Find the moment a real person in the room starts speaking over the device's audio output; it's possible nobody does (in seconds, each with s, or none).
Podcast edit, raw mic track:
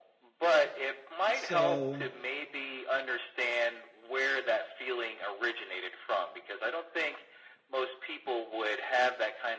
1.3 s